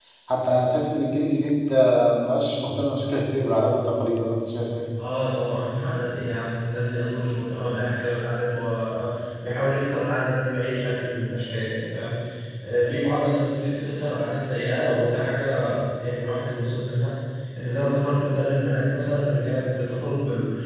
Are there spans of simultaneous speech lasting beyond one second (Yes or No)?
No